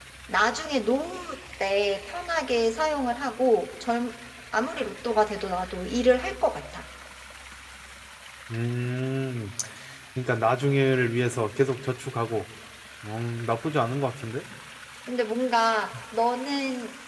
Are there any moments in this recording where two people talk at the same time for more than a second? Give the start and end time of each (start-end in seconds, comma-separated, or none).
none